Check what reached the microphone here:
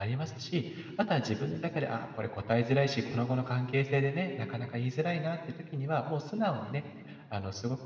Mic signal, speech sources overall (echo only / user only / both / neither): user only